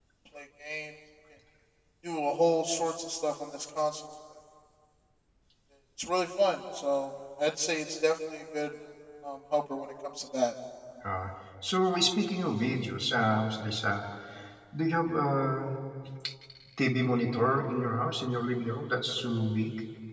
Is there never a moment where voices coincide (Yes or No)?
Yes